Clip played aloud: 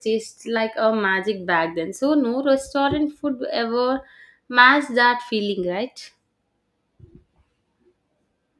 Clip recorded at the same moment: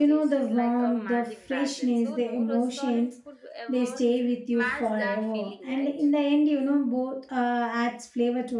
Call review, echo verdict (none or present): present